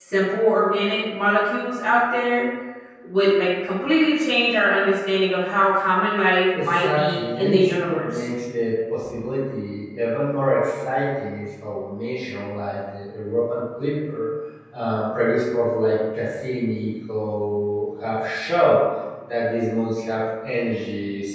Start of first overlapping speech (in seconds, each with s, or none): 6.5 s